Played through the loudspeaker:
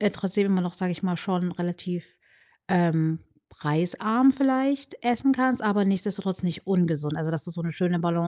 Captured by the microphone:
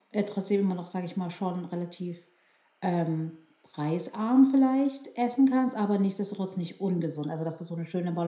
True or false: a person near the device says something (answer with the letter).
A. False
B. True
A